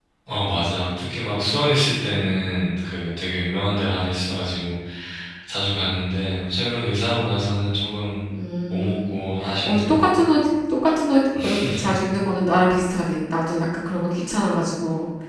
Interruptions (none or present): present